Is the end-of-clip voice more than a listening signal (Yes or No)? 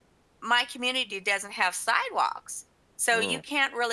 No